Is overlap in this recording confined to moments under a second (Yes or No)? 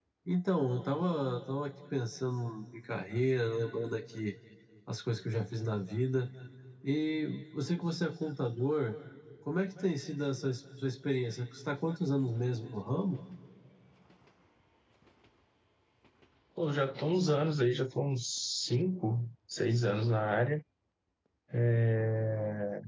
Yes